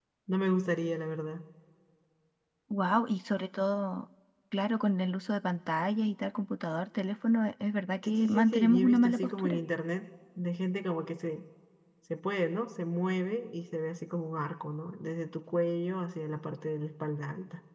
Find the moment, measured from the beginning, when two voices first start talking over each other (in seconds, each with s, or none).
8.0 s